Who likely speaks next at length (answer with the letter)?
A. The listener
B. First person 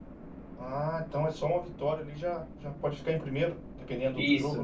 A